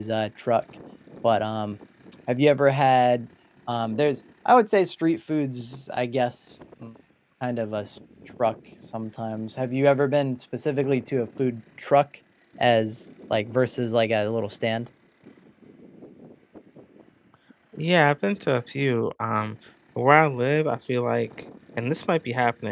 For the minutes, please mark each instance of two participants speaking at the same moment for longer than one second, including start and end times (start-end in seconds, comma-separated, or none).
none